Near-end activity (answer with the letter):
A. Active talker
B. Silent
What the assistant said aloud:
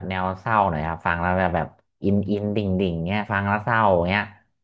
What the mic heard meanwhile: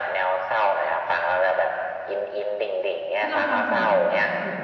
A